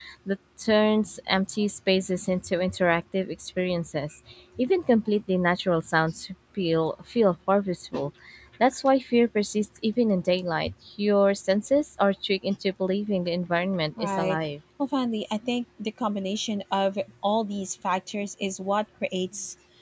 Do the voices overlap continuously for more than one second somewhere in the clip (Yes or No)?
No